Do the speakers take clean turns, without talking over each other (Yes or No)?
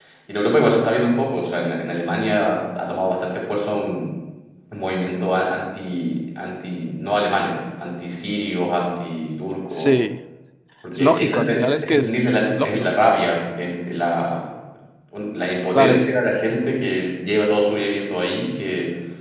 No